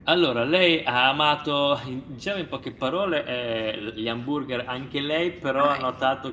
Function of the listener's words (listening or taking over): listening